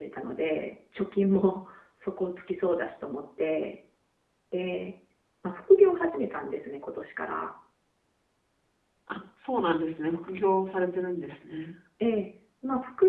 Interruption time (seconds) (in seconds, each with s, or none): none